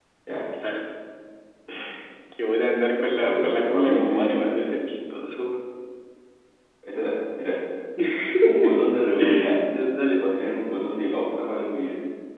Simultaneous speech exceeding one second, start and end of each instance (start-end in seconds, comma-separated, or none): 3.1-4.7